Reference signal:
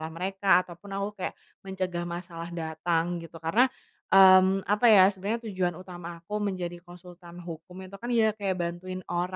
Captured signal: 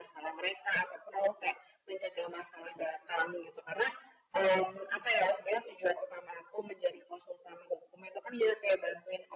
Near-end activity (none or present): none